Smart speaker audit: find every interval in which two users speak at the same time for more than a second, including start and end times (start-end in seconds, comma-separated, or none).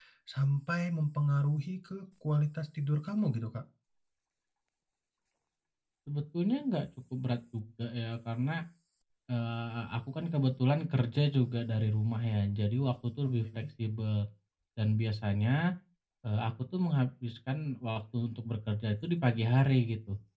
none